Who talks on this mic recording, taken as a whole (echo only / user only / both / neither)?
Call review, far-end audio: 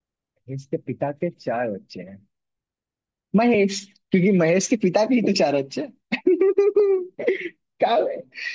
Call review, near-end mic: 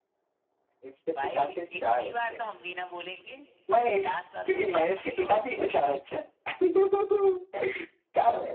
both